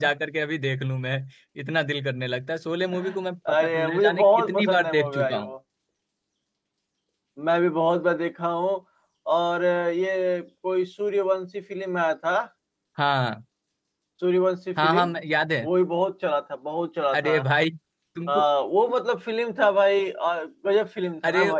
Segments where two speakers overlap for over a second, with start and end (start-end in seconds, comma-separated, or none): 3.5-5.5